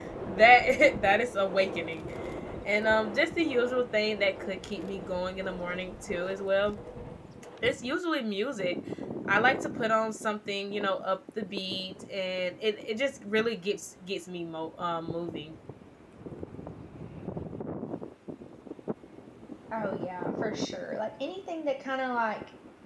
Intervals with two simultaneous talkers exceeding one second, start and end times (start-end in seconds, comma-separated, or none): none